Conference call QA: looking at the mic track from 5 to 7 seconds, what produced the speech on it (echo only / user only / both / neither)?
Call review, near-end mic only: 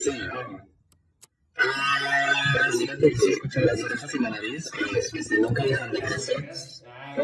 both